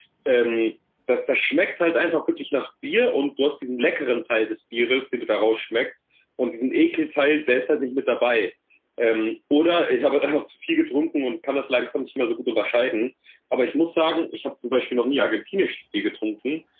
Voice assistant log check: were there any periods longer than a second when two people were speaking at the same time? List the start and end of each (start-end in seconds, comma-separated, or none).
none